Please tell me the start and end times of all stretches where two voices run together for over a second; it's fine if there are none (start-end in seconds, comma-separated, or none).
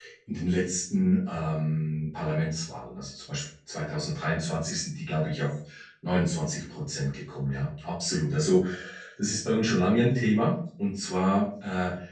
none